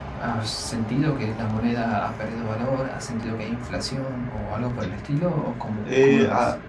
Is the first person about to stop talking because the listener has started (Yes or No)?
Yes